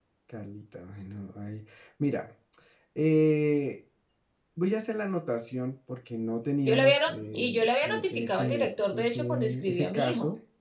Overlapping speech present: Yes, from 6.6 s

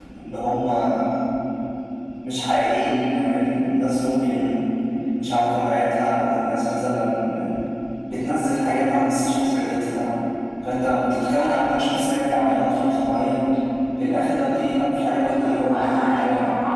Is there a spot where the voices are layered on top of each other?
Yes, from 15.2 s

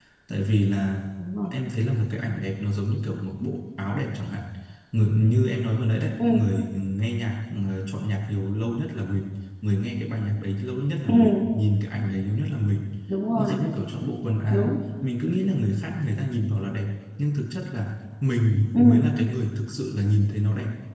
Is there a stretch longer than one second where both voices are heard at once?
No

